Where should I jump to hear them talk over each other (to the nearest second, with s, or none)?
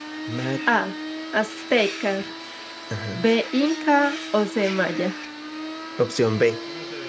none